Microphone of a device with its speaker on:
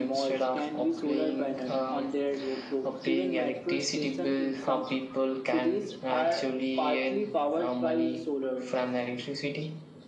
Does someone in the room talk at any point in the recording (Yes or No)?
Yes